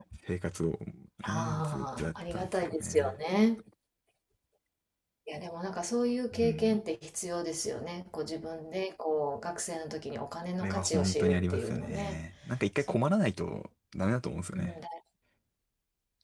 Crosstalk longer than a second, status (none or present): present